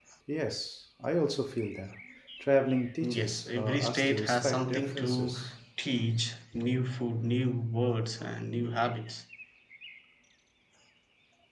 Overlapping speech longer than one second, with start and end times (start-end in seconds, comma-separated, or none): 3.0-5.3